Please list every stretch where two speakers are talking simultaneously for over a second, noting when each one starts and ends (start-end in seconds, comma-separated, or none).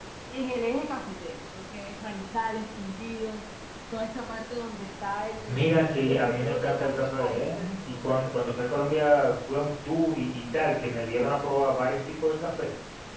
6.1-8.2